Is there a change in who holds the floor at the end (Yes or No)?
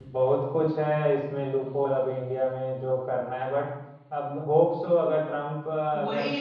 Yes